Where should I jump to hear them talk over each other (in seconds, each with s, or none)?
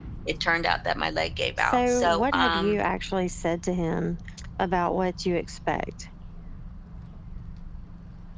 1.6 s